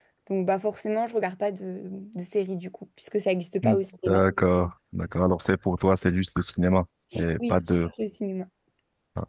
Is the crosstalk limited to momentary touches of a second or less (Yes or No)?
Yes